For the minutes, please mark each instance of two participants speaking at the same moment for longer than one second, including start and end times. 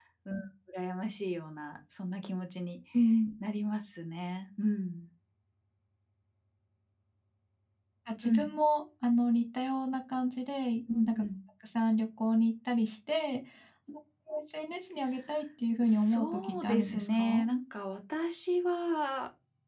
15.8-17.5

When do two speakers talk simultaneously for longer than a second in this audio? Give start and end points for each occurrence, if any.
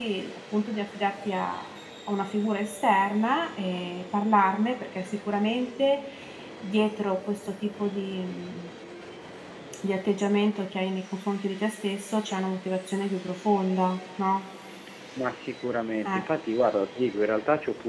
none

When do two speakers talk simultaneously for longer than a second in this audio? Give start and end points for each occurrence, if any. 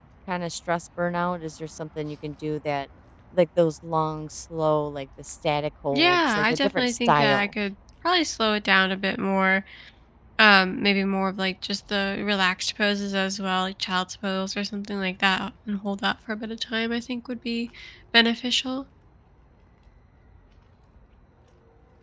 5.9-7.5

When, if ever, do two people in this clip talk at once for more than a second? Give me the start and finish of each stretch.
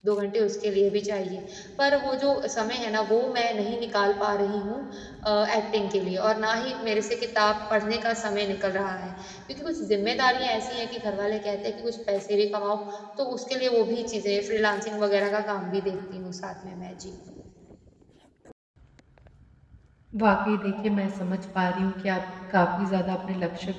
none

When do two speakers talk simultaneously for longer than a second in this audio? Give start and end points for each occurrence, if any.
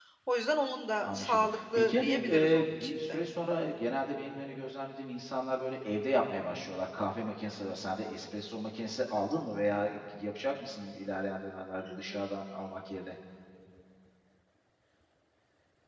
1.0-3.2

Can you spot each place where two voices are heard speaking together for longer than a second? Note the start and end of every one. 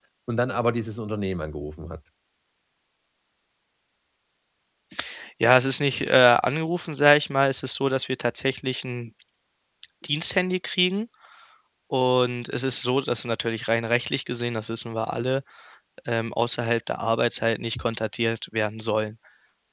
none

